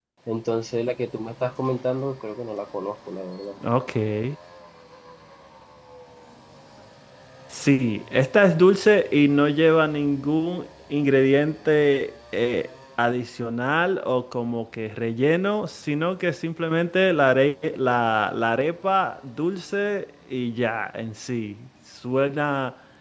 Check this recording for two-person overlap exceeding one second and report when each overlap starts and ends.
none

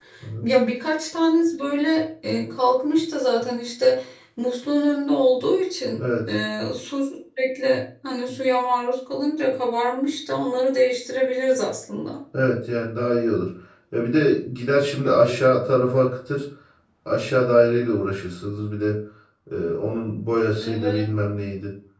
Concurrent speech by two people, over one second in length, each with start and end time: none

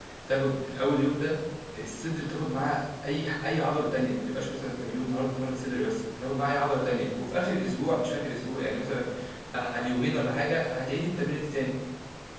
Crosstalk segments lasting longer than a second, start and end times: none

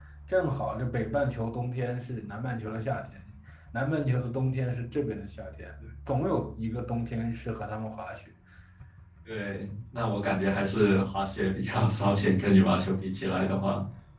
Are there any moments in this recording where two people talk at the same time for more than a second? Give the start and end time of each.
none

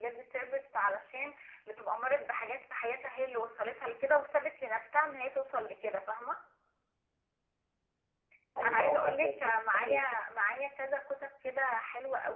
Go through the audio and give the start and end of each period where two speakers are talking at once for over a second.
8.6-10.2

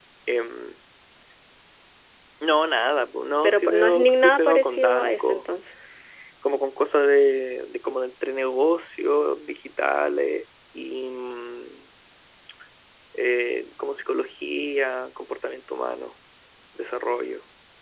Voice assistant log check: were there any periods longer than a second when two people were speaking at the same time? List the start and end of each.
3.4-5.4

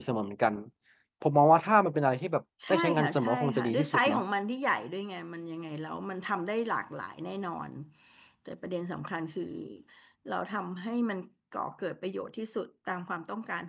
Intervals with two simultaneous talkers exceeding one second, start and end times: 2.7-4.2

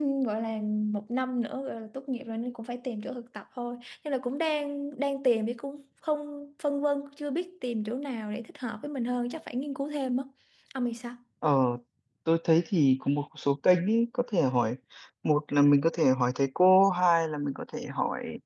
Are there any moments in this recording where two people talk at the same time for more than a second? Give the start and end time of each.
none

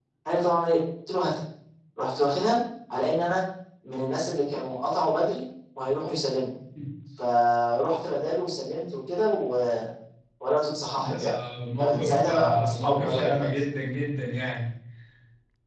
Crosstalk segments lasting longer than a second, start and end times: 11.8-13.5

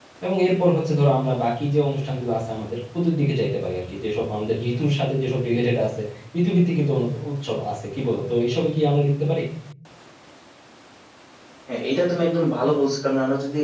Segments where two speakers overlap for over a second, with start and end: none

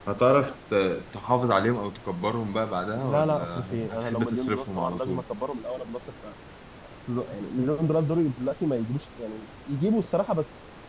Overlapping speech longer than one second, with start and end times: 3.0-5.2

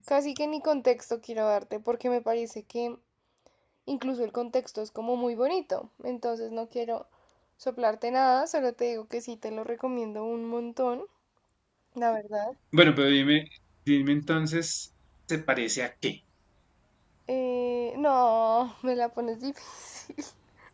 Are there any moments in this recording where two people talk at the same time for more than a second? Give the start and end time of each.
none

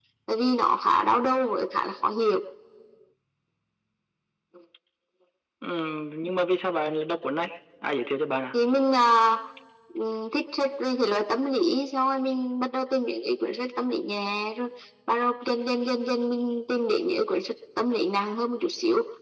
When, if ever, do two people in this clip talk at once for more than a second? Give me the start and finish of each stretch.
none

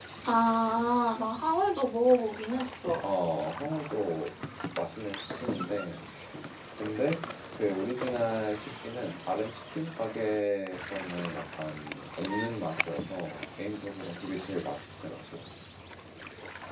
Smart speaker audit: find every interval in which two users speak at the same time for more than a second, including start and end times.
none

